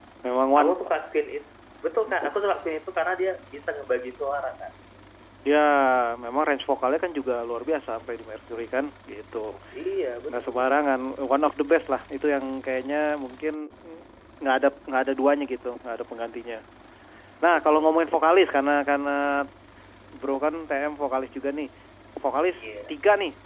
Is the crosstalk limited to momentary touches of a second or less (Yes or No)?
Yes